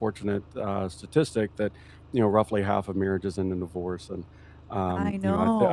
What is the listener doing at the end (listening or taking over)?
listening